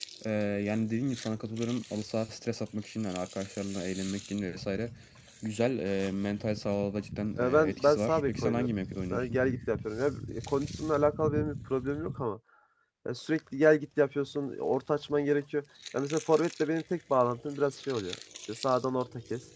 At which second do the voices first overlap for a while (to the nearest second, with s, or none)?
7 s